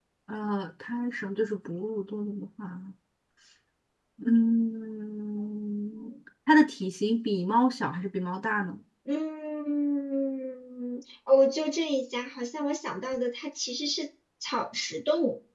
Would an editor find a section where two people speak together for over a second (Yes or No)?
No